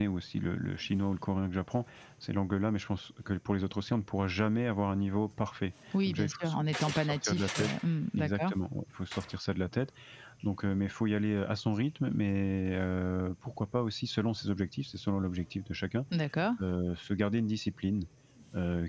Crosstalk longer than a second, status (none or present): present